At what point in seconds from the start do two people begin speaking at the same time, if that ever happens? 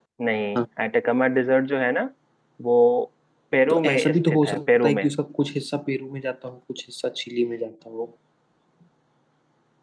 3.7 s

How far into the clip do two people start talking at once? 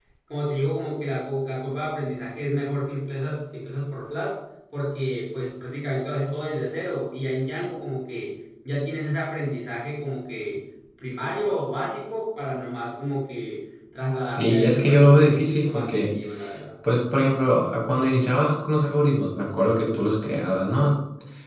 14.4 s

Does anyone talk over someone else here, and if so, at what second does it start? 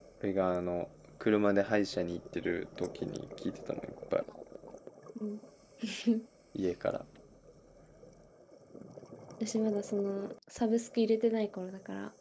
none

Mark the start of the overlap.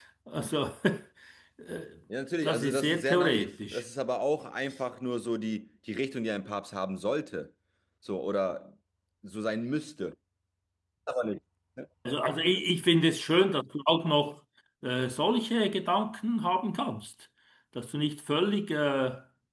2.4 s

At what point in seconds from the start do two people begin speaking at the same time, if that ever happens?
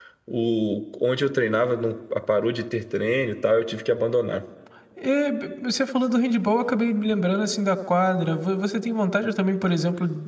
none

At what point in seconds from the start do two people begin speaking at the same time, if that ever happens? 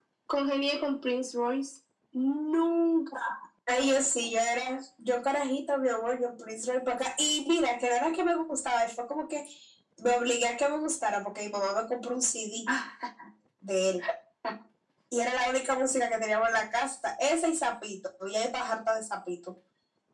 none

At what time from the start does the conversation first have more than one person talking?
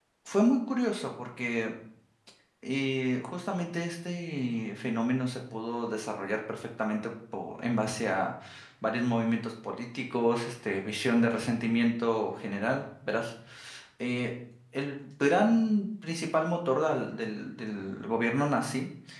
none

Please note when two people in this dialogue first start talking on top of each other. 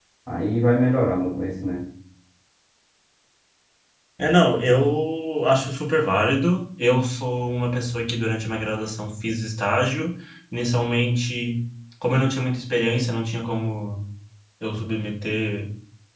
none

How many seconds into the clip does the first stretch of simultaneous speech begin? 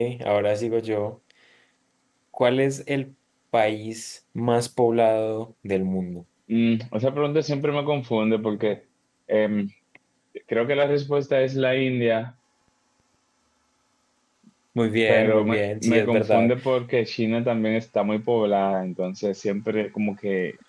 15.1 s

